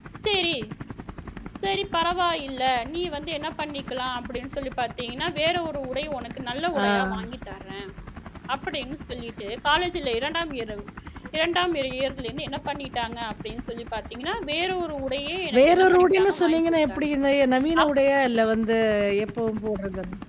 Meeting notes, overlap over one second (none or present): present